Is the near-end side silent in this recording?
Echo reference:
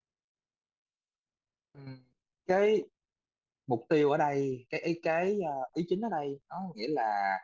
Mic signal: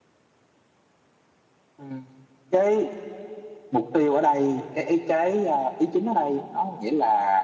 Yes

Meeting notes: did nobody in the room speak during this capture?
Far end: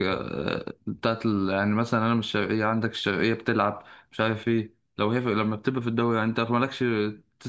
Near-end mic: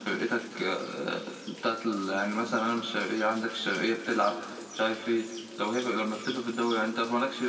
Yes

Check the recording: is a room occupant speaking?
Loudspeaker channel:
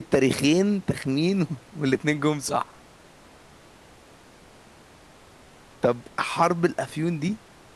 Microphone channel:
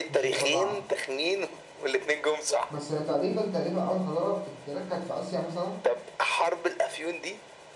Yes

